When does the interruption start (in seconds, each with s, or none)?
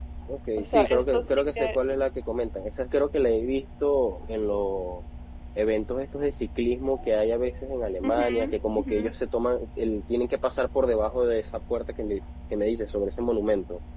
0.6 s